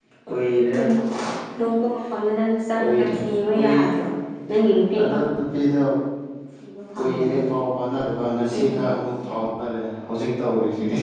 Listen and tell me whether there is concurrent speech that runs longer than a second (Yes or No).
No